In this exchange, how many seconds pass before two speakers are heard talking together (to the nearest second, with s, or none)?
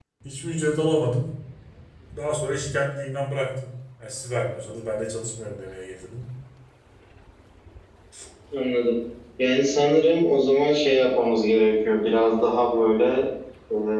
none